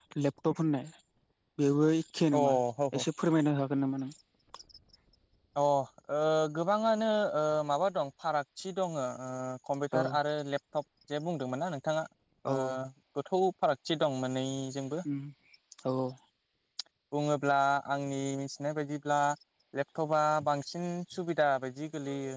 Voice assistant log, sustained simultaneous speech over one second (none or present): none